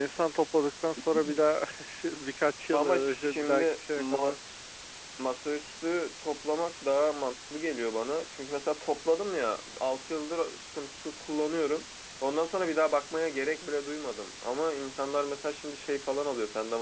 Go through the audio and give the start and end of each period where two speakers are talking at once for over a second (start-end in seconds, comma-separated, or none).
2.7-4.4